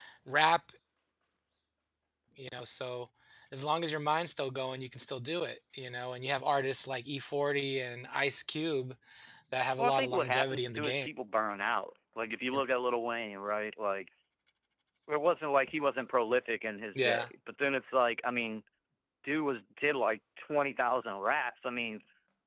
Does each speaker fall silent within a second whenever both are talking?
No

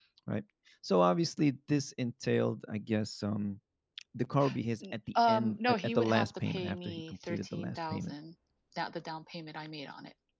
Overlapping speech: Yes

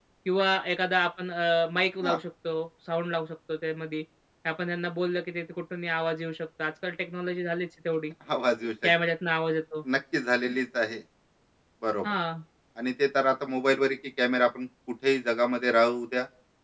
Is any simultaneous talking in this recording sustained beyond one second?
No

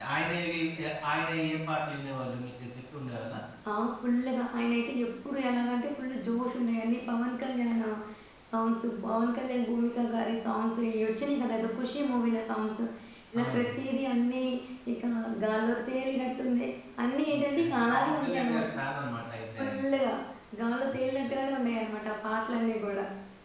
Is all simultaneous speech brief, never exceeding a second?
No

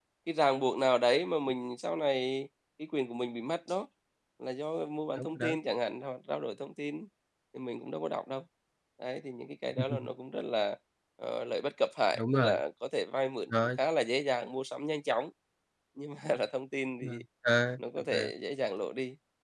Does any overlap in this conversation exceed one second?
No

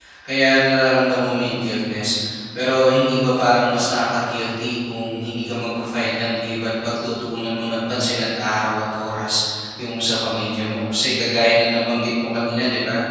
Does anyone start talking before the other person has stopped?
No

